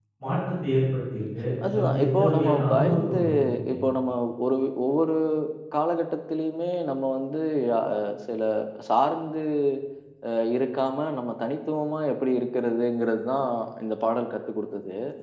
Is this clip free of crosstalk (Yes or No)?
No